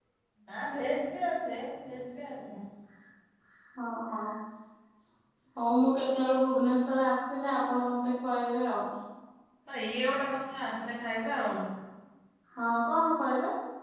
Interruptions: none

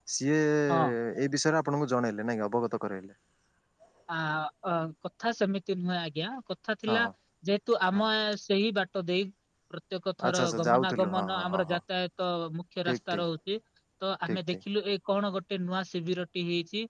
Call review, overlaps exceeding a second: present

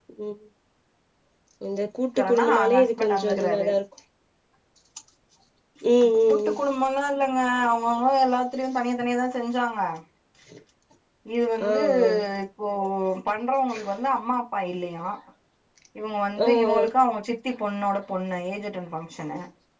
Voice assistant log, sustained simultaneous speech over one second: present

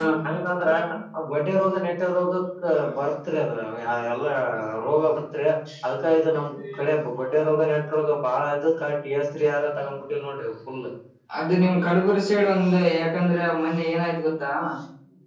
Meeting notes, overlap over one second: none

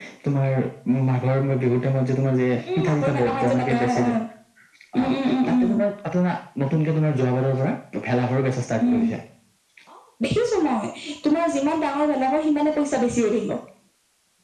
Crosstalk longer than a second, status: present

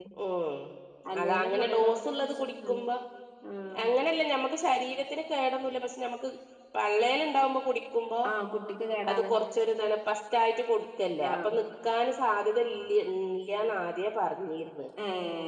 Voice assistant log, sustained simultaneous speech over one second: present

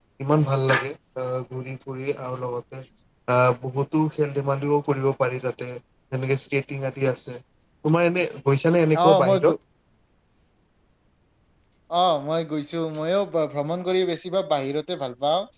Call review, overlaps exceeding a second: none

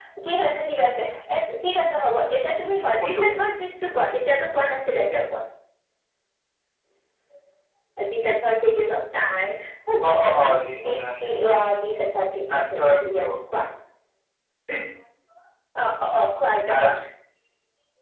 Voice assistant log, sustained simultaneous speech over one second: present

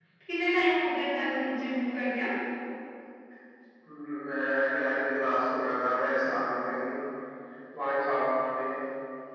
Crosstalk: none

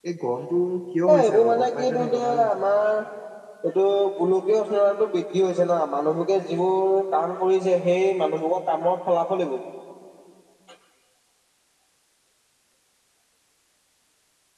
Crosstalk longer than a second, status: present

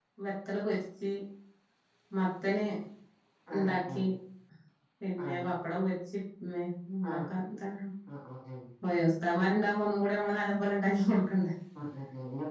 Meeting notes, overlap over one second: none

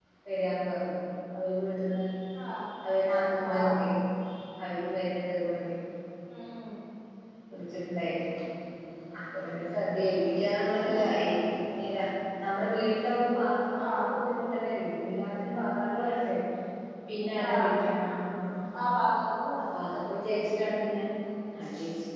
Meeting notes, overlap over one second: none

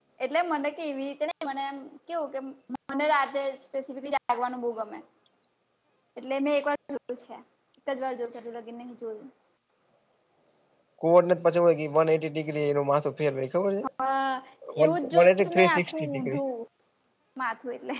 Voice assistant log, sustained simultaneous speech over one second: present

